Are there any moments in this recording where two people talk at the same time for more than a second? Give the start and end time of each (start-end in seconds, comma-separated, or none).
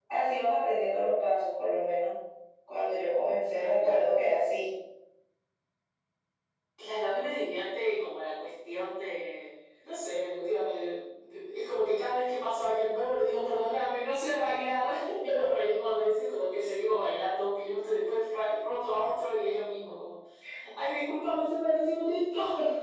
none